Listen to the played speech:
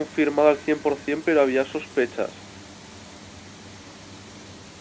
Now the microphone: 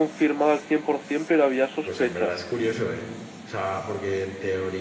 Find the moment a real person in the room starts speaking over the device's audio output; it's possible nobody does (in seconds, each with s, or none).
1.8 s